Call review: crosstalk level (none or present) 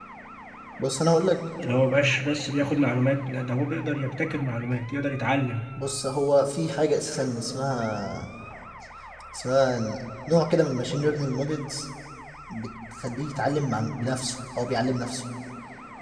none